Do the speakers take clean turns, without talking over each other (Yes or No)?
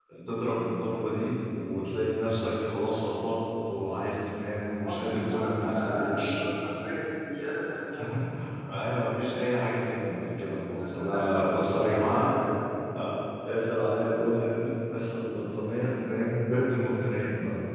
No